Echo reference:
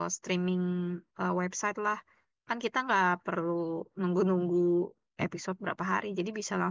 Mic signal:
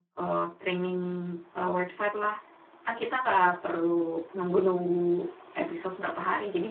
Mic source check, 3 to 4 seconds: echo only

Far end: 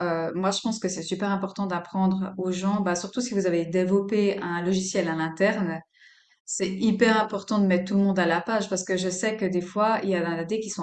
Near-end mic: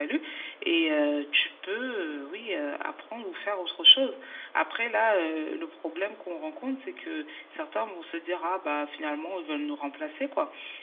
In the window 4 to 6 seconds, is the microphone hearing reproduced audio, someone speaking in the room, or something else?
user only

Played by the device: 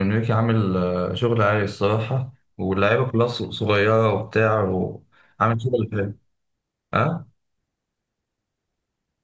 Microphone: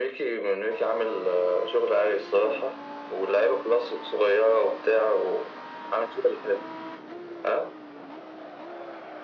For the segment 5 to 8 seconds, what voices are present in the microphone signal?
echo only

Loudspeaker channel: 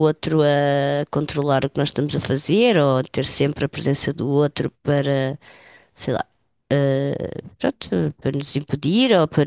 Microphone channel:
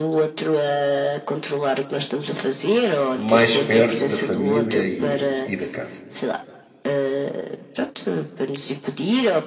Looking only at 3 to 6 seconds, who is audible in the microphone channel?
both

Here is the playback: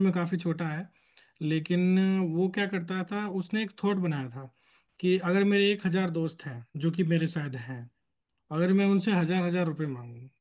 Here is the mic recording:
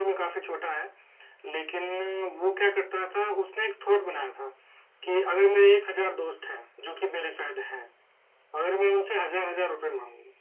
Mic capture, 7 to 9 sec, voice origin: echo only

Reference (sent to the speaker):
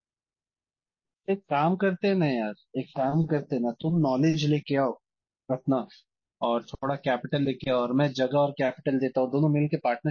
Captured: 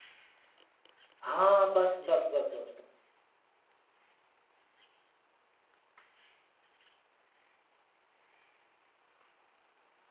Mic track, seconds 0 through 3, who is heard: user only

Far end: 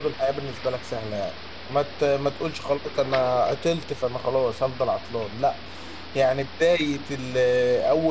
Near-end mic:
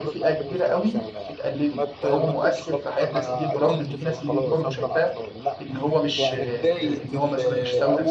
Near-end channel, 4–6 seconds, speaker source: both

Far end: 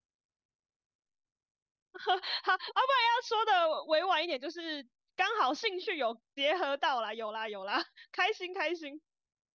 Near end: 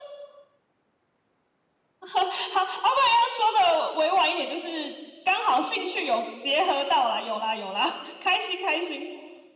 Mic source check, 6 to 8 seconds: echo only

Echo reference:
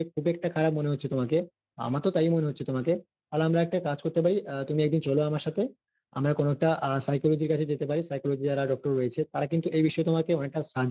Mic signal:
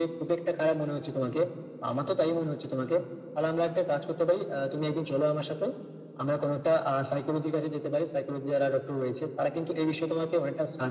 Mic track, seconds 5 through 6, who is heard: echo only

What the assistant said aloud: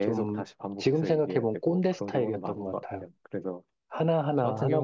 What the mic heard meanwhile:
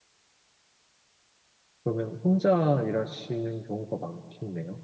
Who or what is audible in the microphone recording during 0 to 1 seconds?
neither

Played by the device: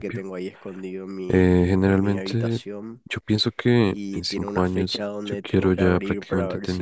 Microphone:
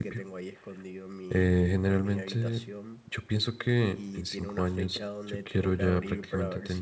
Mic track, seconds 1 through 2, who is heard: echo only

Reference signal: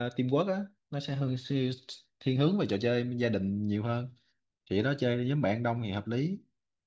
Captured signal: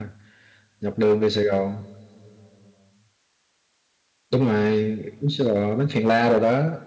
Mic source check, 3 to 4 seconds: neither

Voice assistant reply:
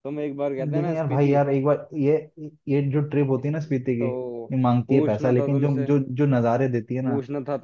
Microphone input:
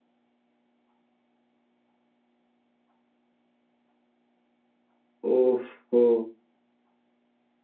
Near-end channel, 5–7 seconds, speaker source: user only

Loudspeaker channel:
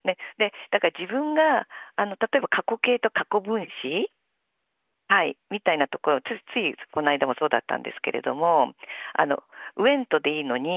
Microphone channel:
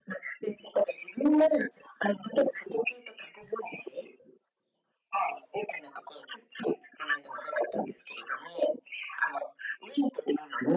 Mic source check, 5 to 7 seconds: echo only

